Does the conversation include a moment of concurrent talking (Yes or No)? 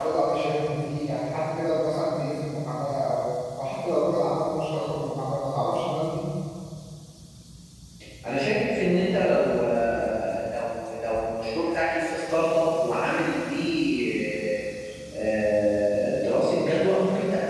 No